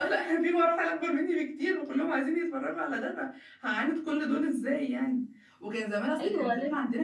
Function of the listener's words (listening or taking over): listening